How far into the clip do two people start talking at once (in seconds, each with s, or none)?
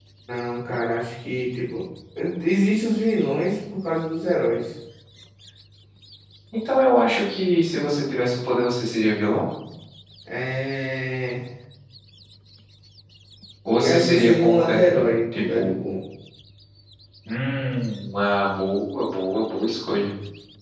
13.8 s